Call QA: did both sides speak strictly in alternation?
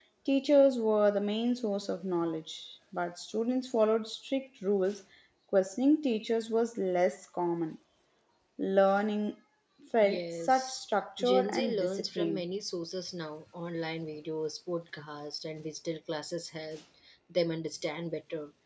No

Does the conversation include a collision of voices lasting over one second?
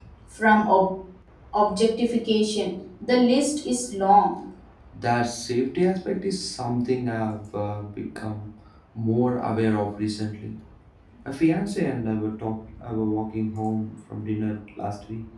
No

